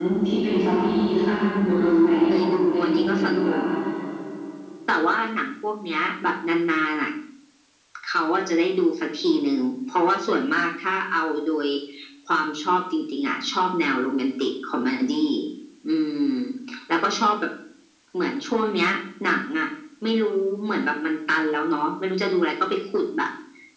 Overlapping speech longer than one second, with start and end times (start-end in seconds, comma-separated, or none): 2.3-3.5